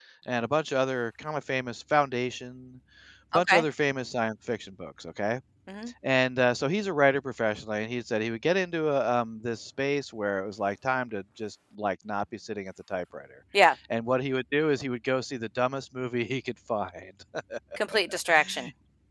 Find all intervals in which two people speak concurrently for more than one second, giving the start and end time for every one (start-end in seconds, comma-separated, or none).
none